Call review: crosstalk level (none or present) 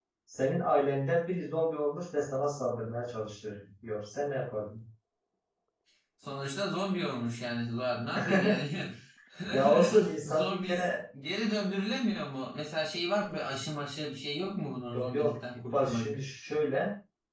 present